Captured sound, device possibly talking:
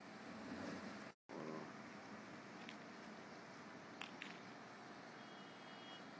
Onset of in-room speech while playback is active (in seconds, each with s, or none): none